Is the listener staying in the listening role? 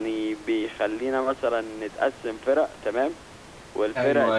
Yes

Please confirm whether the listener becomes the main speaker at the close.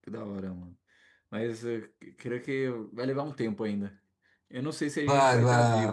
Yes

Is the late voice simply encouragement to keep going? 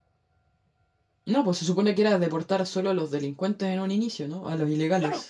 No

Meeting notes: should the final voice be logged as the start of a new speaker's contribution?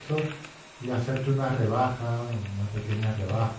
Yes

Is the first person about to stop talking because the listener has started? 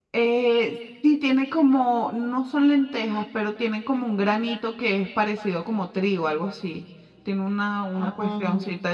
No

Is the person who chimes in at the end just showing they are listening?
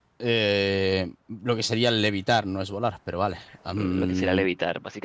No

